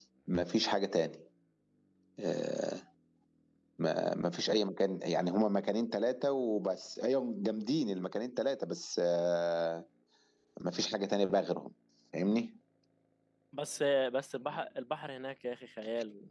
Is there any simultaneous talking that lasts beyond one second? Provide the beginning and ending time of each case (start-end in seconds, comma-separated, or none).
none